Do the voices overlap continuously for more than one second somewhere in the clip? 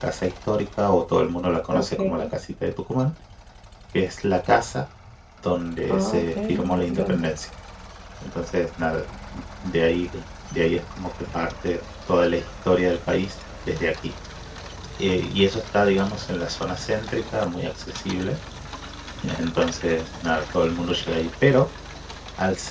Yes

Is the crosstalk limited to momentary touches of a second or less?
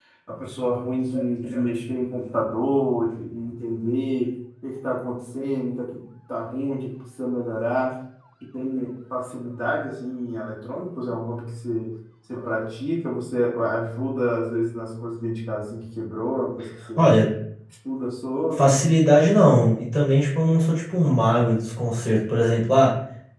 Yes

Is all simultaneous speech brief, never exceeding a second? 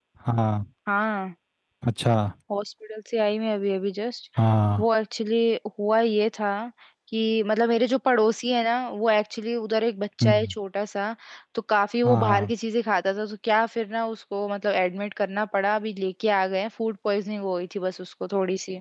Yes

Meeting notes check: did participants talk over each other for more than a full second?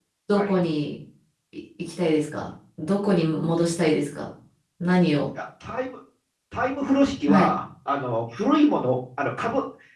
No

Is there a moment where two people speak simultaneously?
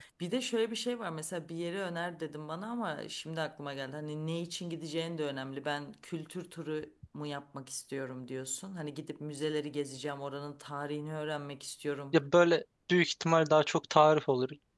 No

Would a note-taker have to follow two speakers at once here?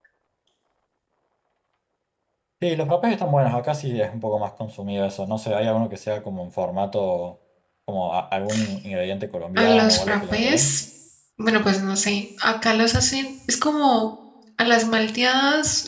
Yes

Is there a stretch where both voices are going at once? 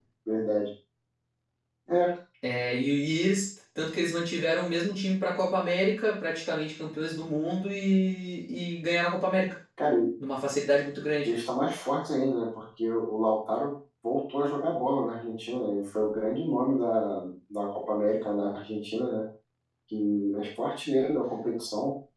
No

